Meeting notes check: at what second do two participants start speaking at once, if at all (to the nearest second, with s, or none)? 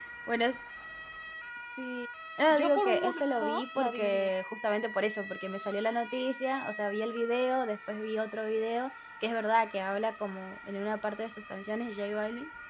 3 s